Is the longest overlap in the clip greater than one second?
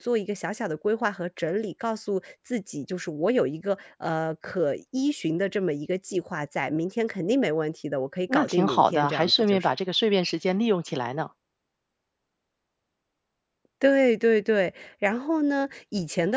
Yes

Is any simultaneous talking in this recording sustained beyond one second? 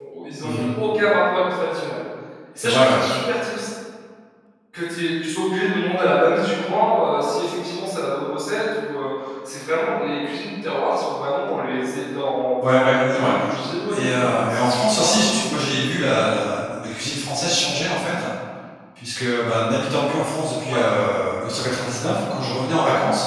Yes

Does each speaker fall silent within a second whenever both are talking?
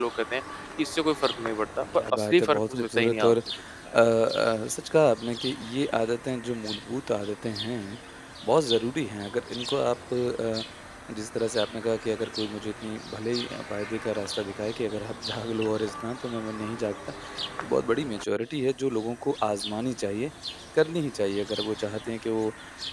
No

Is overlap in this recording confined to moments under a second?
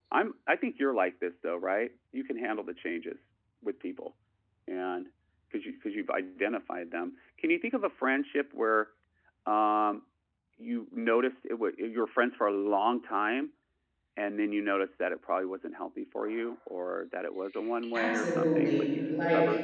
No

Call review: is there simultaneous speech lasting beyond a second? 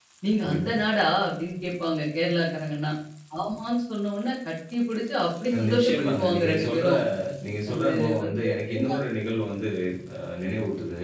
Yes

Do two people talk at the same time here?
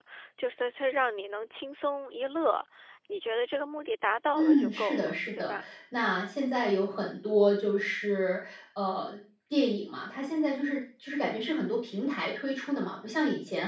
Yes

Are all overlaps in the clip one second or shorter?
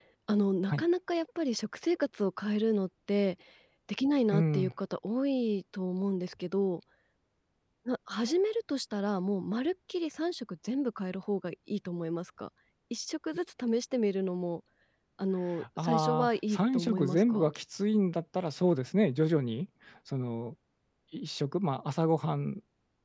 No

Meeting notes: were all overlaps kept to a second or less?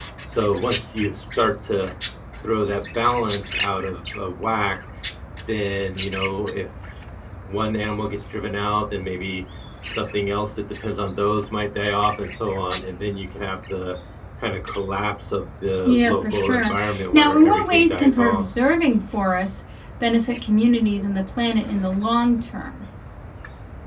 No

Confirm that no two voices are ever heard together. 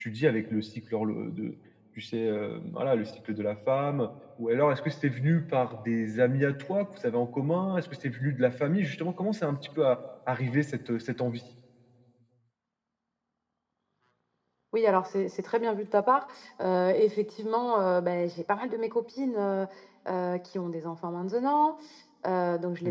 Yes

